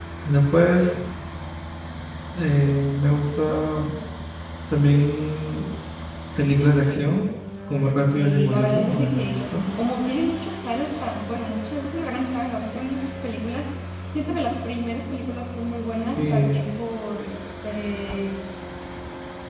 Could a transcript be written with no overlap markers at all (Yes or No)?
No